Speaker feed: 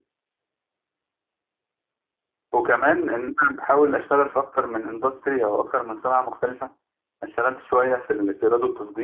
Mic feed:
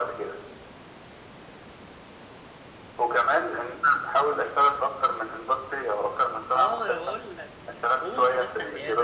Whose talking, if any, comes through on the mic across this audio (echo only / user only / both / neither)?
both